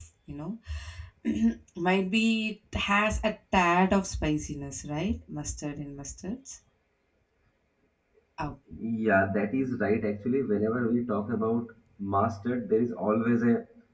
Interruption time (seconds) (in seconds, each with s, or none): none